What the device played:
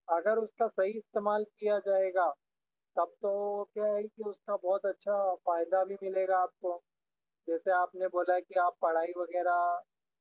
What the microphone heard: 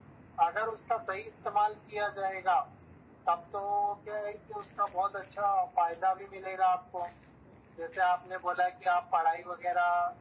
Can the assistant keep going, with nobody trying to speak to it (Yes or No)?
Yes